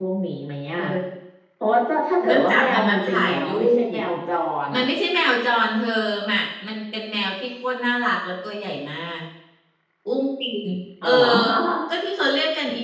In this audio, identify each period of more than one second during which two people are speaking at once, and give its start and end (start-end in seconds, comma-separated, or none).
2.2-4.0